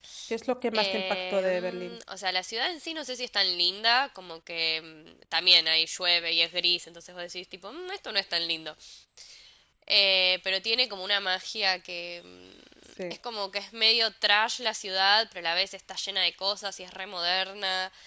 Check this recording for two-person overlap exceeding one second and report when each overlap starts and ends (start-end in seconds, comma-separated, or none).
0.7-2.0